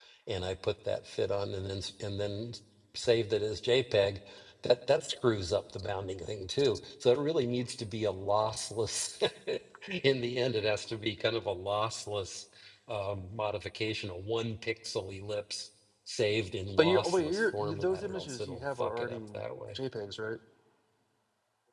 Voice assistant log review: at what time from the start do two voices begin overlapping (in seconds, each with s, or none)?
16.8 s